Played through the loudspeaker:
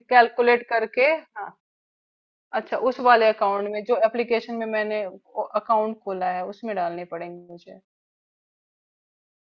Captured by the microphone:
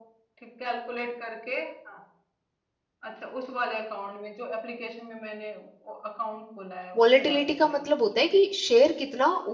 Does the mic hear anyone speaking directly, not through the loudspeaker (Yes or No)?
Yes